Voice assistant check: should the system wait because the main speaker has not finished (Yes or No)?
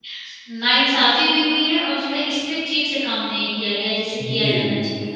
No